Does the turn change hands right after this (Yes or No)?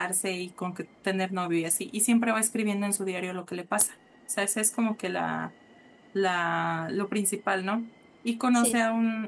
No